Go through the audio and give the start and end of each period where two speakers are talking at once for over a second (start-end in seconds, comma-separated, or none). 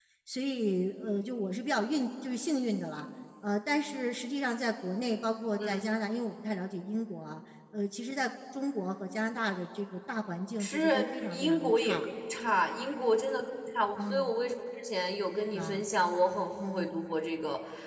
10.6-12.1